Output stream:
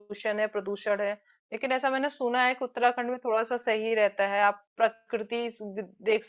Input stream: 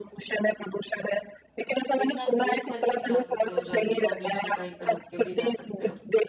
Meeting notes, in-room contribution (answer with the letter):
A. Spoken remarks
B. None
A